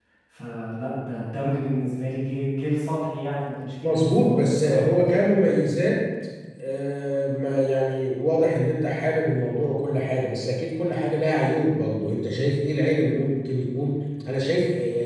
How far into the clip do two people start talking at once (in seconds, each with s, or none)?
3.8 s